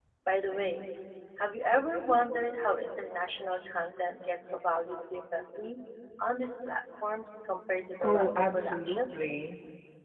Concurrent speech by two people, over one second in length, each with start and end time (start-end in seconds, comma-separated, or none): 8.0-9.2